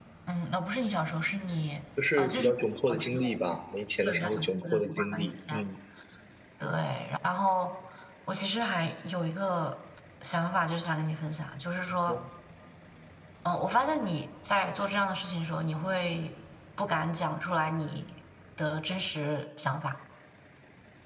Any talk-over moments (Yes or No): Yes